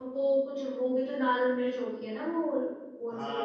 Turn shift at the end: Yes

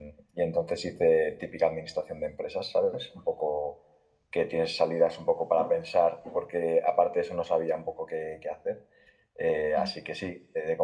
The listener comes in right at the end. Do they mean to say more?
No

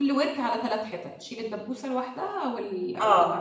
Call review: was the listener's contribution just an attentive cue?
No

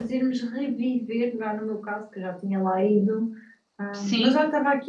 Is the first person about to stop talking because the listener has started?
No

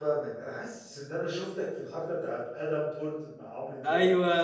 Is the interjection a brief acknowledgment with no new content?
No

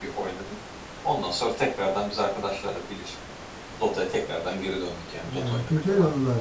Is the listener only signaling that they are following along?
No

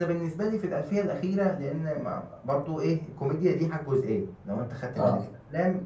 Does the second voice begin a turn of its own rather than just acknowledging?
No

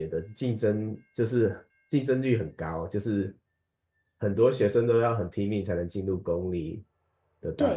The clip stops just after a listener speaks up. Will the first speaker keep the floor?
No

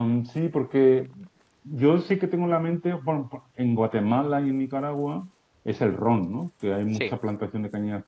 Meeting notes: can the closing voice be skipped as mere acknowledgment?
Yes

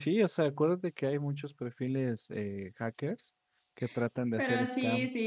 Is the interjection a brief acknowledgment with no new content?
No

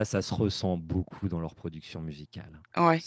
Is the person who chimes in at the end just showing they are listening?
Yes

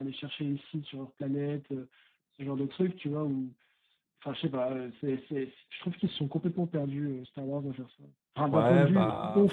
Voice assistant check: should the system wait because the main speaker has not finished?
No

